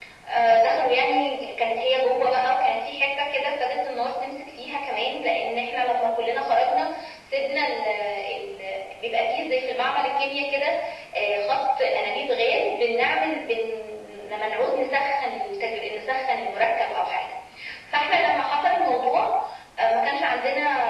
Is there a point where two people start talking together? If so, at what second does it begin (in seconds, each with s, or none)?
none